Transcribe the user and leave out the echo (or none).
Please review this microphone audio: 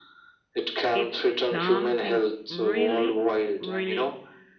it's something really, really